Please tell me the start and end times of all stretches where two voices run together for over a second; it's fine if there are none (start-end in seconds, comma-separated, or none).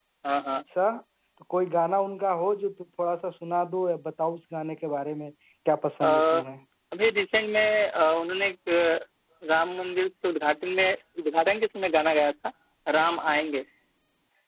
none